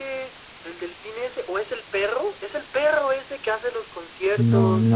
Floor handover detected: Yes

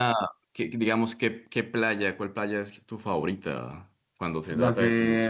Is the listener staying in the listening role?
No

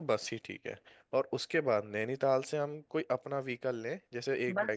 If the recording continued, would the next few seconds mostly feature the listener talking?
Yes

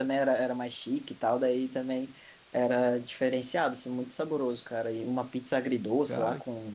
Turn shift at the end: No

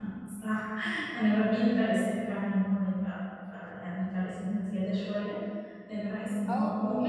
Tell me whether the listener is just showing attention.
Yes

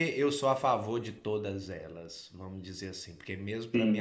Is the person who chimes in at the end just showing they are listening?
Yes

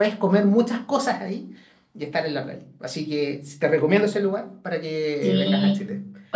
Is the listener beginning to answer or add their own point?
Yes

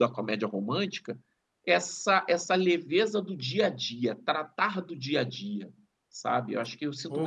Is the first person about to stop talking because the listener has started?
Yes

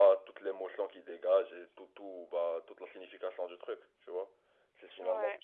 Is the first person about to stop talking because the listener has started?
No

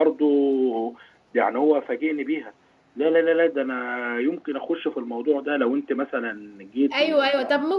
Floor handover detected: Yes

